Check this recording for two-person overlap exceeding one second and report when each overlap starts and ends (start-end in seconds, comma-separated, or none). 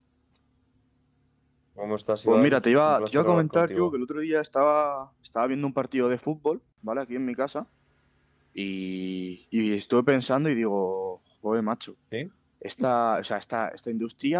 2.3-3.9